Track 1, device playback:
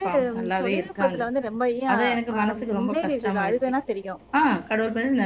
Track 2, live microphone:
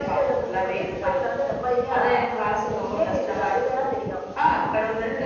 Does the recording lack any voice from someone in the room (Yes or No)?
Yes